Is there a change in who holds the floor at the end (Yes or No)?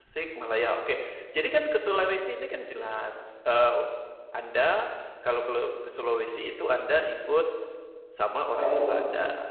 No